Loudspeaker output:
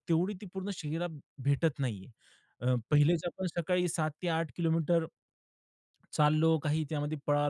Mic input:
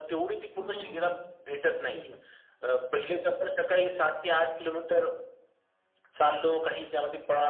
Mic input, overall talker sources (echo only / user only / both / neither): both